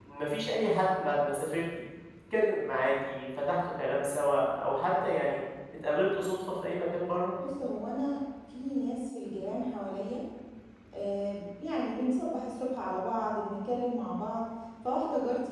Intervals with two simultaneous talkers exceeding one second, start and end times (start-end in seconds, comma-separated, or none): none